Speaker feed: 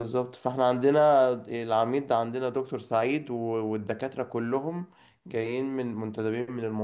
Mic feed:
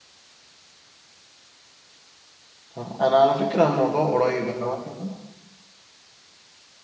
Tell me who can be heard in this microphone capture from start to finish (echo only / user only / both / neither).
user only